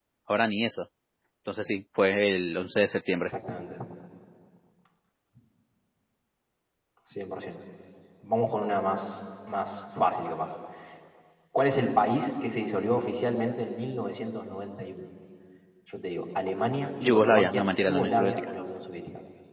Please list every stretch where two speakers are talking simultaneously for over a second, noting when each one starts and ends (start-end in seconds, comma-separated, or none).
17.0-18.5